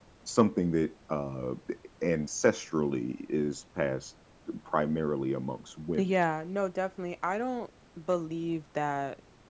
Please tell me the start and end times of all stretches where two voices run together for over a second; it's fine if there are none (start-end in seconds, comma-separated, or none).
none